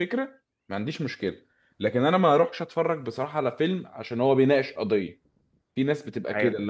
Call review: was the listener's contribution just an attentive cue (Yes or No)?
Yes